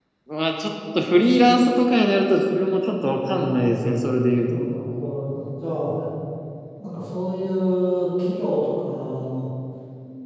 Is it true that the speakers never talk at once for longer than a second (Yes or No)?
Yes